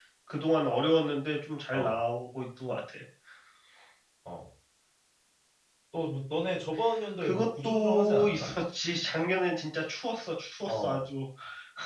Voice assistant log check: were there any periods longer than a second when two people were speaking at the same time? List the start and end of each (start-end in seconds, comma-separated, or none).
7.2-8.5